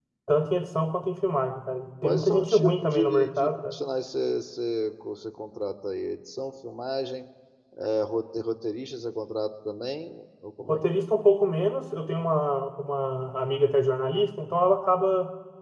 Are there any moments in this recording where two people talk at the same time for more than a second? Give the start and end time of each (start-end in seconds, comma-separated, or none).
2.0-3.7